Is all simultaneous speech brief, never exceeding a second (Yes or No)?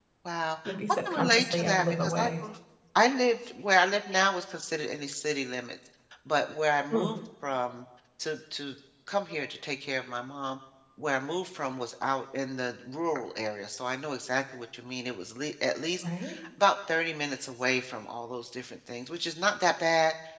No